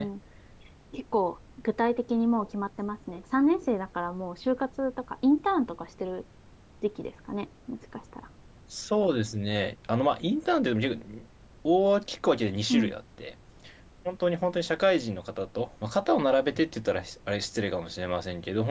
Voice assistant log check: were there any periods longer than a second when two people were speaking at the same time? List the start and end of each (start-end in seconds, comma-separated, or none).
none